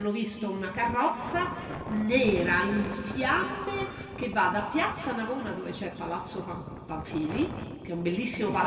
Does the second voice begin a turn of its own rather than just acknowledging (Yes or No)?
No